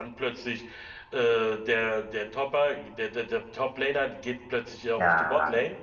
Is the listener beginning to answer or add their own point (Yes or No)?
No